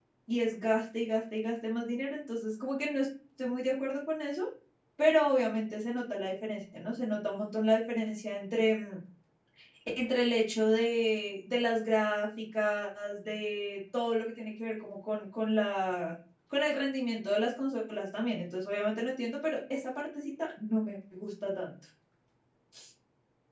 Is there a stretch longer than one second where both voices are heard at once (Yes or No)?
No